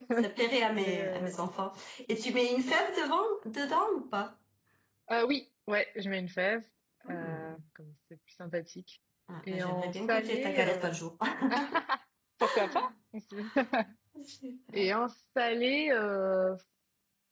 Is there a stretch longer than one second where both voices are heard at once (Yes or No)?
Yes